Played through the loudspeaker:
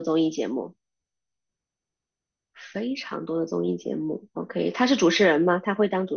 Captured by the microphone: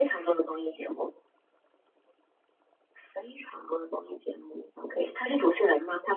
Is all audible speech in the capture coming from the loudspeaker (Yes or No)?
Yes